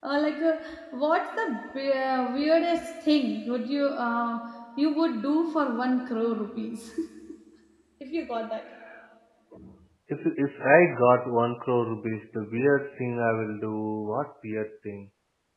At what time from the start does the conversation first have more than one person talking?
none

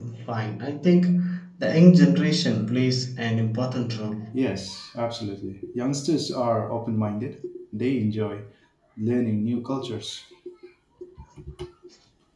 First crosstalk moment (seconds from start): none

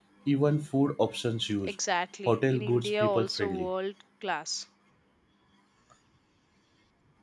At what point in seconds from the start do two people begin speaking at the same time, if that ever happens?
2.3 s

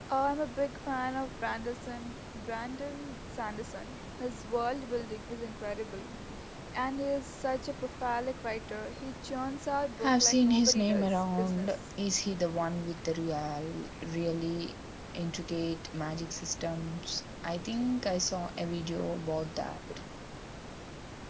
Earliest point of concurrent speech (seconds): 10.0 s

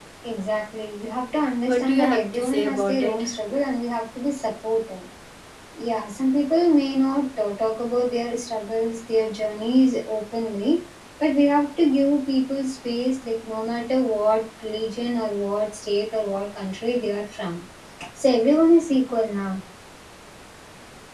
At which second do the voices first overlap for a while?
1.7 s

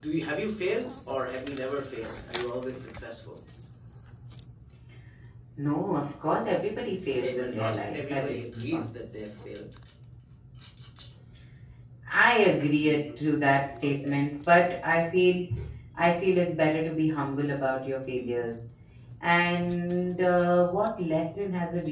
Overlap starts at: 7.2 s

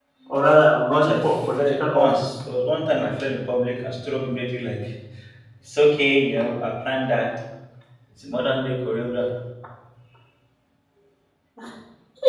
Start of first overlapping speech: 0.9 s

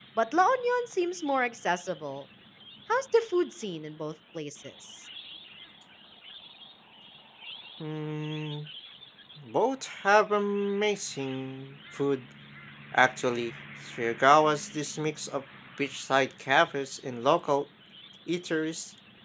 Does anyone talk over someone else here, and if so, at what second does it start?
none

